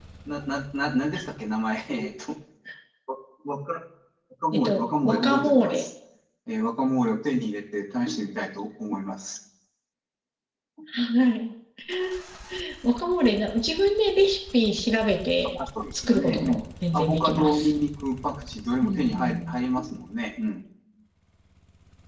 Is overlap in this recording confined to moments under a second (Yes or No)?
No